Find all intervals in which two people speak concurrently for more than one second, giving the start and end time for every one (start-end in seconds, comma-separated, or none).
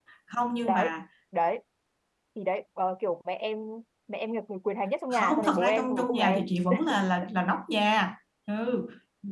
5.1-6.4